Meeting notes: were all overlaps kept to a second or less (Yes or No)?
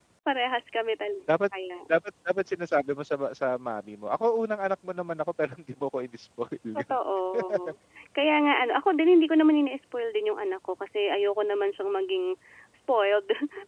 Yes